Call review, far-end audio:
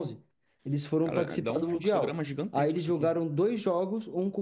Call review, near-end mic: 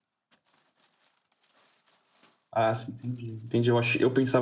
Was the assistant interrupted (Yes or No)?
Yes